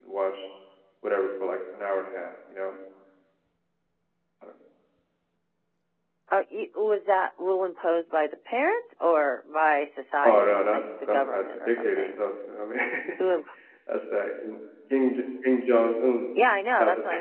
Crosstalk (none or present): present